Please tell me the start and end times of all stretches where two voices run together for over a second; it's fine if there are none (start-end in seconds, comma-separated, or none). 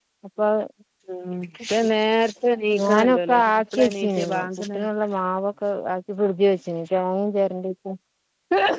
2.8-4.9